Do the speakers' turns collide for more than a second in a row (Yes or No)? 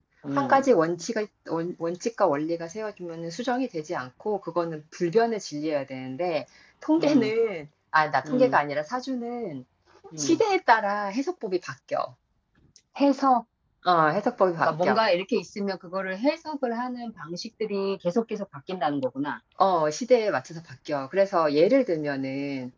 No